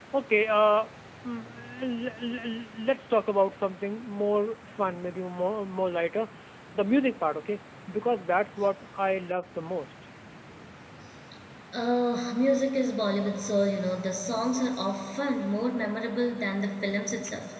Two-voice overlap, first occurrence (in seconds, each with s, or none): none